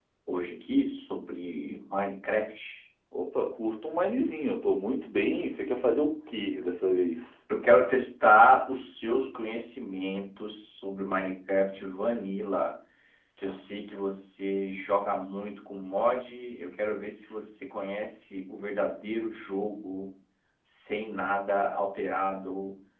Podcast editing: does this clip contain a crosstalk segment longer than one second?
No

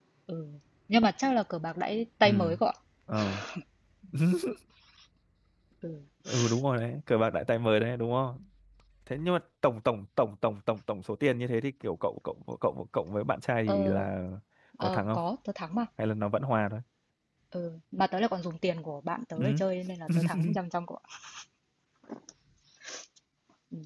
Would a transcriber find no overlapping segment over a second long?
Yes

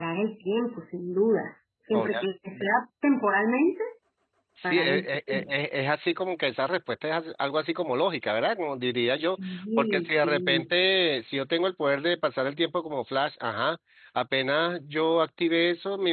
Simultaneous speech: Yes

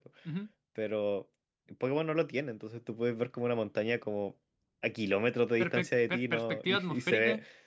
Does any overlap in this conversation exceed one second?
Yes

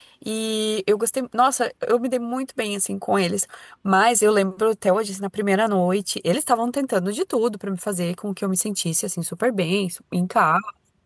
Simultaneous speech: No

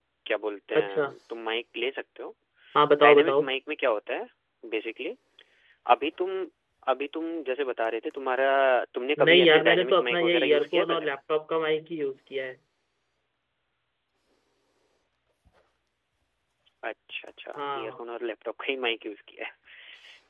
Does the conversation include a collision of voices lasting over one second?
Yes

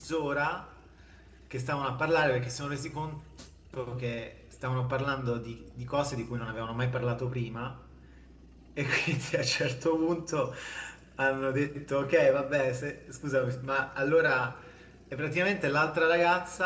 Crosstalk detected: No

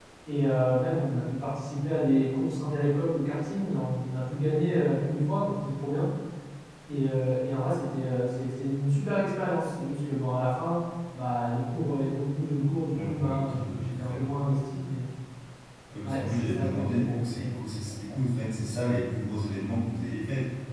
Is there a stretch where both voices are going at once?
Yes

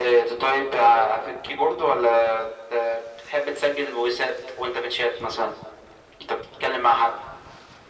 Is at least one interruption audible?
No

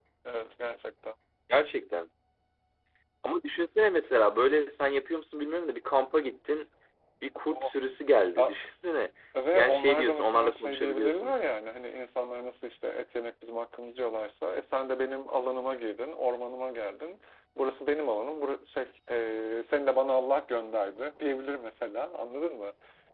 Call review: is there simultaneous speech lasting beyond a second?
Yes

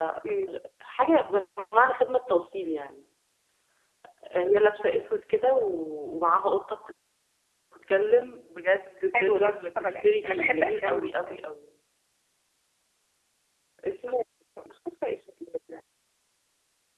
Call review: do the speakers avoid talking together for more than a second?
No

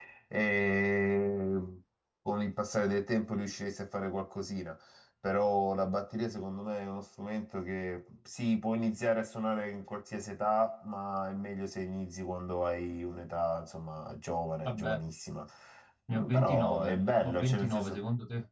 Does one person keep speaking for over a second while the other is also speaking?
Yes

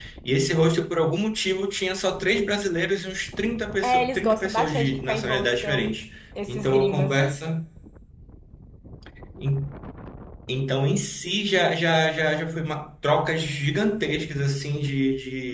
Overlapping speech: Yes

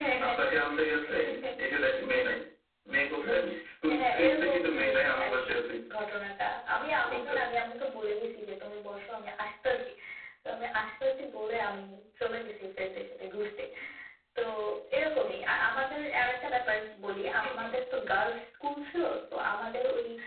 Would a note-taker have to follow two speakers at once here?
Yes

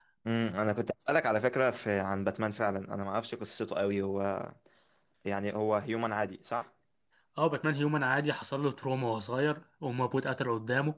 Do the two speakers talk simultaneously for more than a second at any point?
No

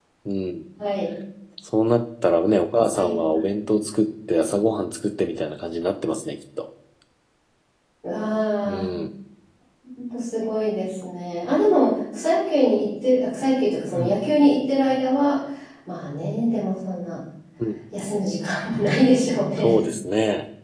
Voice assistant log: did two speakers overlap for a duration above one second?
No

